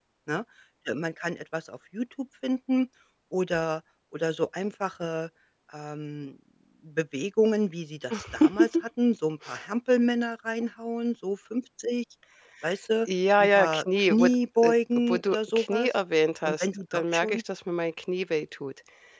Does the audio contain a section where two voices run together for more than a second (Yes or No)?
Yes